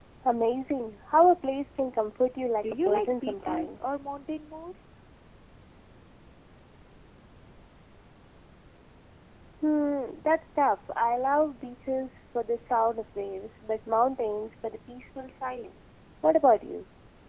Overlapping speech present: Yes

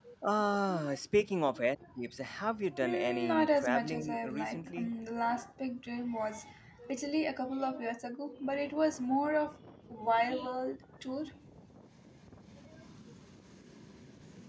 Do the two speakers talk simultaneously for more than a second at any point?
Yes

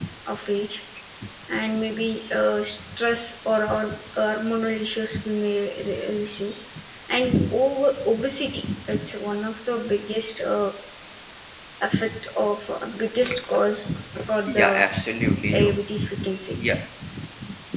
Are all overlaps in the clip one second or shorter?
Yes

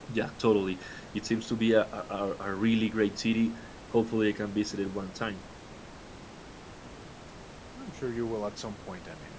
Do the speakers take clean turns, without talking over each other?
Yes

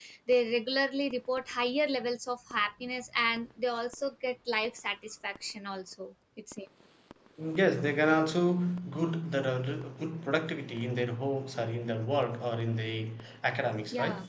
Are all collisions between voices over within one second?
Yes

